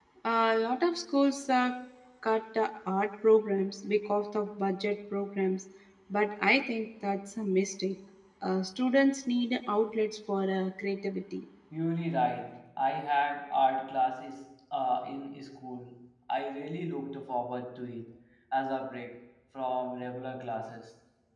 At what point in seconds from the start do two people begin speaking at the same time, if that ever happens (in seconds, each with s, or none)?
none